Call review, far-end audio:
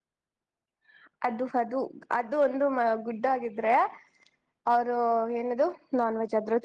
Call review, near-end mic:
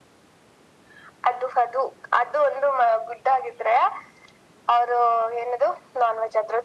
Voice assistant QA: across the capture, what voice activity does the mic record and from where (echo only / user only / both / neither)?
echo only